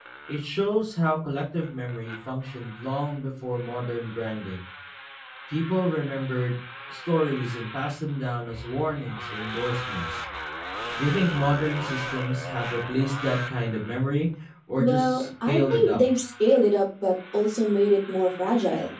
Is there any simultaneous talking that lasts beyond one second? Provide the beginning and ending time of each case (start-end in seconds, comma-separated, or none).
14.8-16.0